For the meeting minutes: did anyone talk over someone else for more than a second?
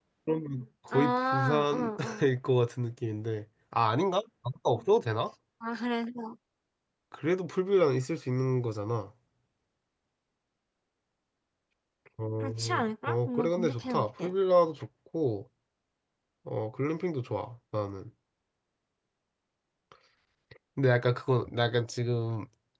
Yes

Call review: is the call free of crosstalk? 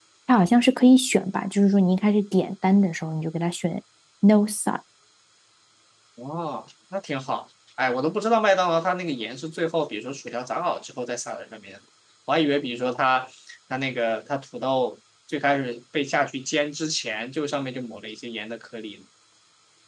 Yes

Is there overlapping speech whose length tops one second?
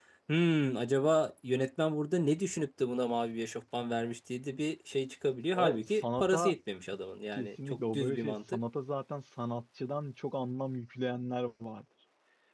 Yes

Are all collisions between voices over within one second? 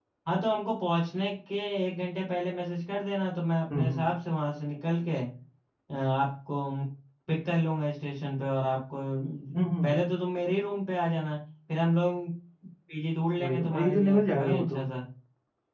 No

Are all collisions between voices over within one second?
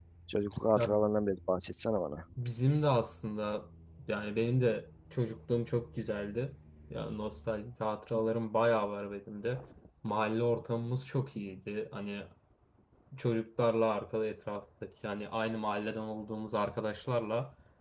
Yes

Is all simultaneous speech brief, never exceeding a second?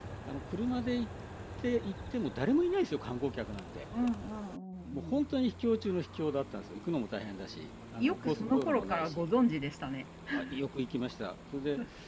No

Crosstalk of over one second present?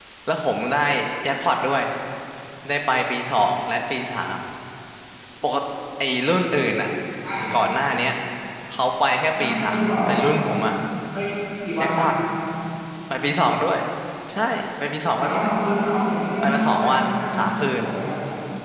Yes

